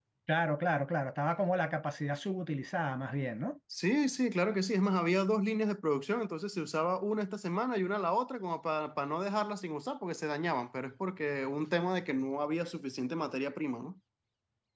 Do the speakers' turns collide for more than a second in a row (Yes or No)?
No